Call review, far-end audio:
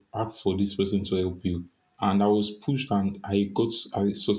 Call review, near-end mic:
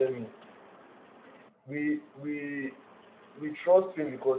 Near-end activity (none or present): present